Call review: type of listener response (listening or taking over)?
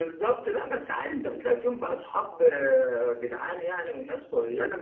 taking over